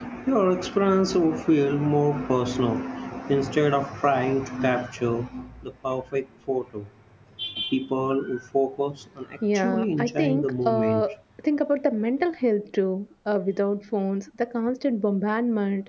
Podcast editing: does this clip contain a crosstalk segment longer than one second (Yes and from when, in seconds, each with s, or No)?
Yes, from 9.4 s